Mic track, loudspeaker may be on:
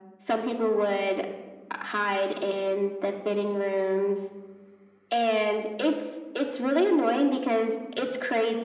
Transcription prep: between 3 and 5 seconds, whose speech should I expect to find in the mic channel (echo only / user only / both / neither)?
echo only